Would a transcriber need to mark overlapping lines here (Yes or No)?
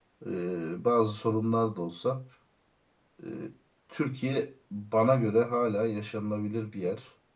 No